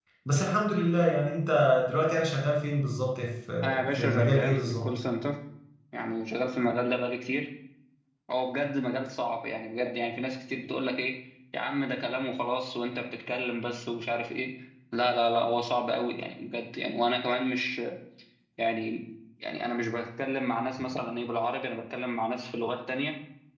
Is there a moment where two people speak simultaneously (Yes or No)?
Yes